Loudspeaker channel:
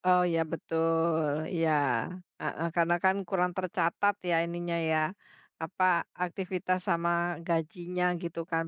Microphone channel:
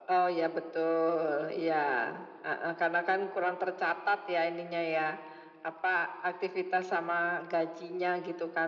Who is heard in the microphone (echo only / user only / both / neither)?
echo only